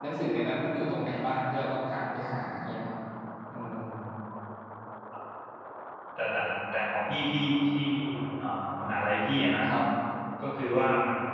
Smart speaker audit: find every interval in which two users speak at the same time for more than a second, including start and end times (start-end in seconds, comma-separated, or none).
none